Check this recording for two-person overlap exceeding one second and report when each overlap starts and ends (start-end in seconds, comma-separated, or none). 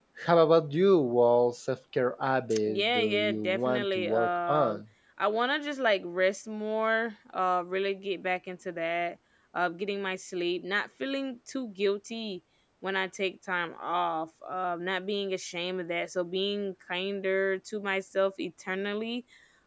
2.6-4.8